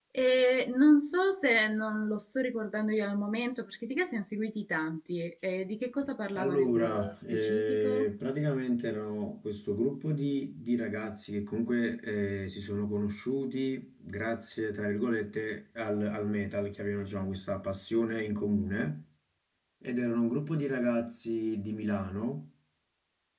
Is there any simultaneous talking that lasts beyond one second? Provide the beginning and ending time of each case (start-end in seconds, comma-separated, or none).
6.3-8.1